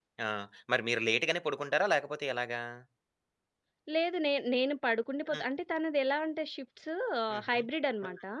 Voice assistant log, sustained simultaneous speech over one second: none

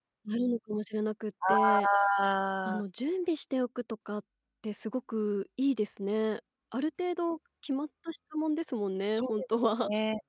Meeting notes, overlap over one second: none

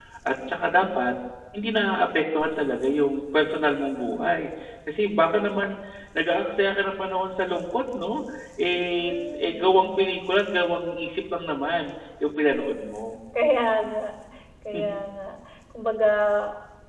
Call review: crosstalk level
present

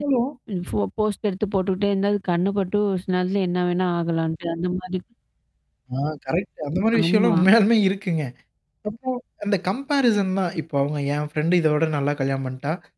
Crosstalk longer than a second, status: none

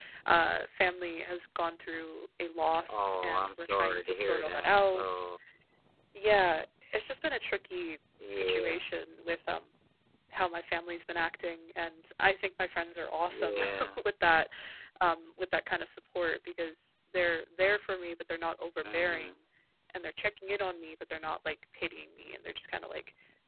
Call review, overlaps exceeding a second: present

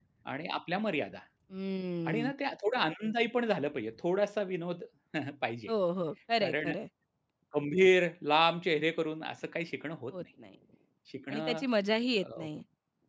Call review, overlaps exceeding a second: none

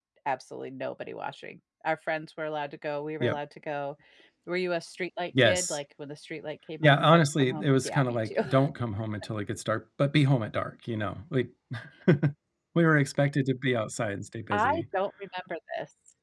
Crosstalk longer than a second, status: present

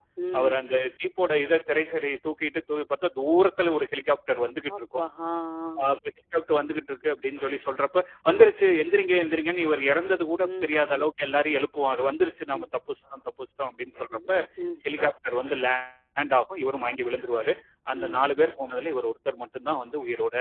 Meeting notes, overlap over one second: none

